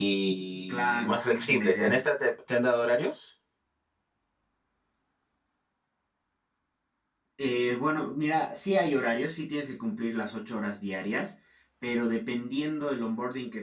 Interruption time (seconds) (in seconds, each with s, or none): 0.7 s